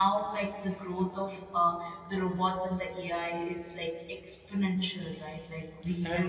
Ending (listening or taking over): taking over